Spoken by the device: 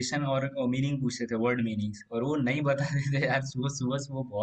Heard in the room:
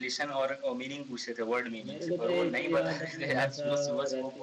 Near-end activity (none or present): present